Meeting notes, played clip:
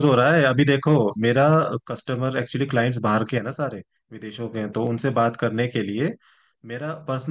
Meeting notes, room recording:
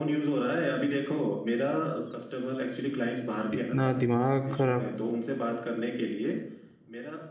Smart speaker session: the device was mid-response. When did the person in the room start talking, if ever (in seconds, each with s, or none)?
3.5 s